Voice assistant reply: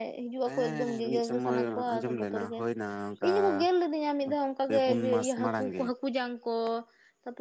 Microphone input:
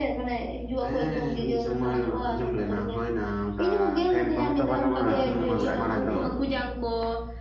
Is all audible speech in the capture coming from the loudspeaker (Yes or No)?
No